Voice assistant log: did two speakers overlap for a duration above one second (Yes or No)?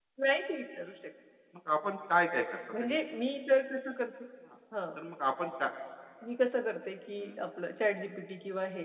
No